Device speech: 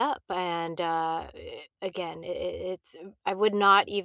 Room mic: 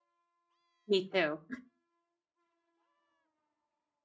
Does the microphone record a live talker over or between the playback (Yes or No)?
Yes